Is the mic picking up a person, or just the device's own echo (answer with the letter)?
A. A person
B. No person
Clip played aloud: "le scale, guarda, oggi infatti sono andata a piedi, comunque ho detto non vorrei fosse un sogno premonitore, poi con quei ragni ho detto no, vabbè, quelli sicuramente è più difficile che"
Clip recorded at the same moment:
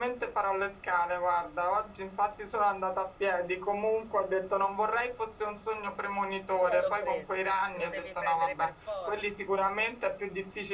A